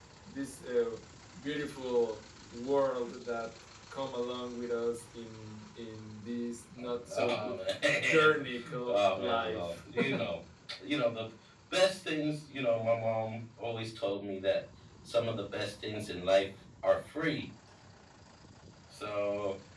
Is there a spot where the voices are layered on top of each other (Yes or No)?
Yes